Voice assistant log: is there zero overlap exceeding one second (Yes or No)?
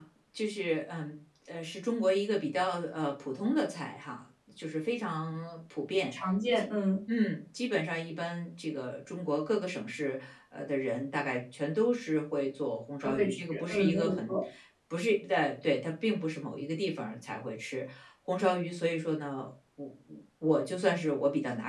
No